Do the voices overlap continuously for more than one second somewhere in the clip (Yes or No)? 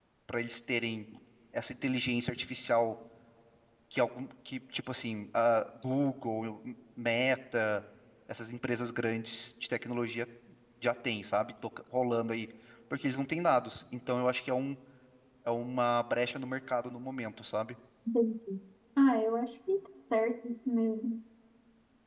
No